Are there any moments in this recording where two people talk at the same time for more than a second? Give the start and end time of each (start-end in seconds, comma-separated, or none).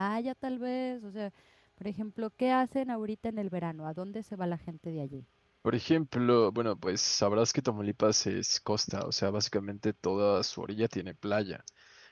none